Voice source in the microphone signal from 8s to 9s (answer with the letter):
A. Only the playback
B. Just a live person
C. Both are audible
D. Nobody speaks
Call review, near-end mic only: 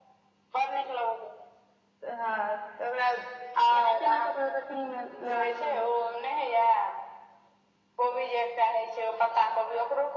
A